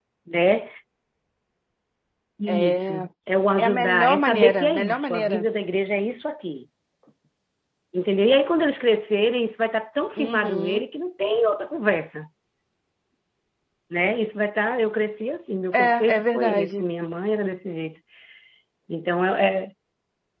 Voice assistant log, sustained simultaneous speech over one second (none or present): present